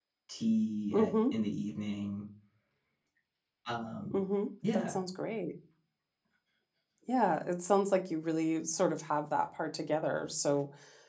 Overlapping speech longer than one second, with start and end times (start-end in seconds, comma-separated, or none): none